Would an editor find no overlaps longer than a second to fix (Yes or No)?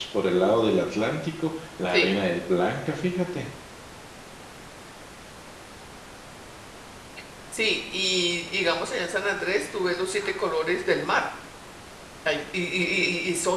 Yes